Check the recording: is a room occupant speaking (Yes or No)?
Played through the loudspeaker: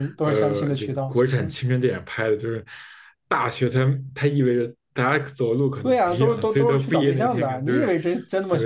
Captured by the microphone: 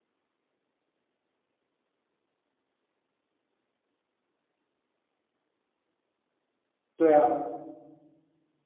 Yes